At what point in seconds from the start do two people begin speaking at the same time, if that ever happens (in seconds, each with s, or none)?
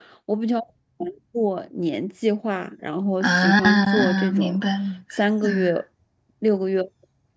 3.2 s